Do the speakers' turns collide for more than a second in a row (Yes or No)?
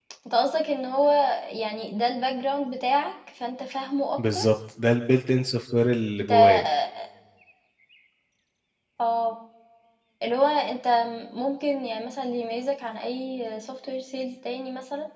No